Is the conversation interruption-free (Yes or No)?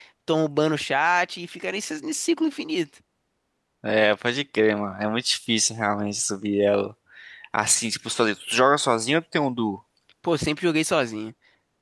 Yes